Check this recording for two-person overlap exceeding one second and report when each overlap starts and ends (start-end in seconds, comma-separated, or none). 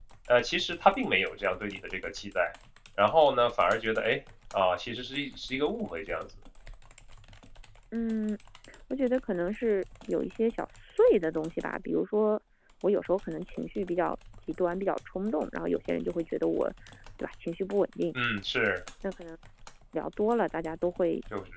none